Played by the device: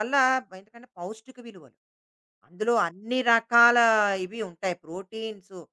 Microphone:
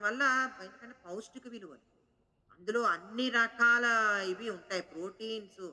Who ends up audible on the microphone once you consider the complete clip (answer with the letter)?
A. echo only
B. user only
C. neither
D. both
A